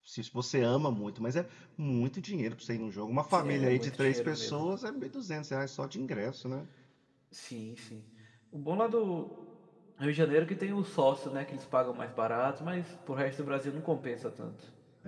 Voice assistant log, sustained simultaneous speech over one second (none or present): present